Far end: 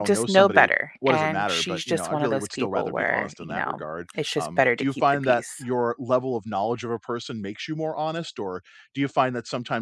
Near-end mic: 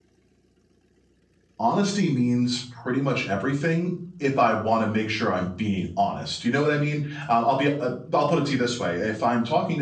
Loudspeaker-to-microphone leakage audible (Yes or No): No